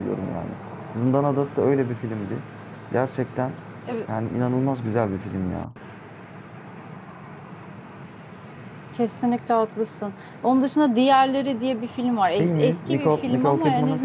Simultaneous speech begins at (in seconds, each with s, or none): 12.4 s